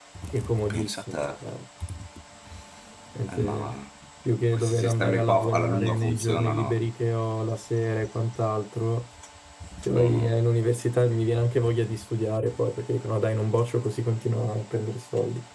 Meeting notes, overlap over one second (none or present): present